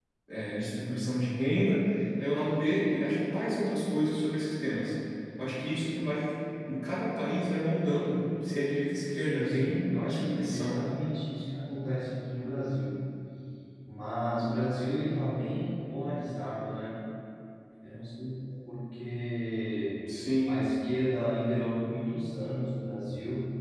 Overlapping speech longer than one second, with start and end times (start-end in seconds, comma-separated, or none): 9.1-10.8